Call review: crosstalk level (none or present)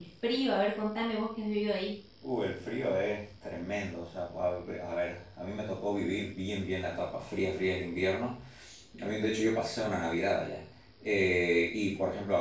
none